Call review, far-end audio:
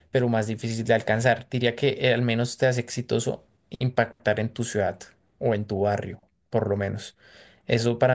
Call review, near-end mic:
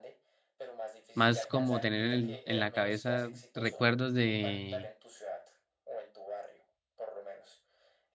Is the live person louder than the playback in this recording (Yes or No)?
Yes